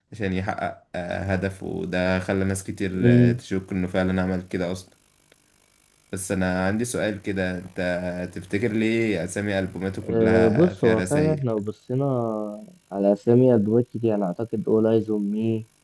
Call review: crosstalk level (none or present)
present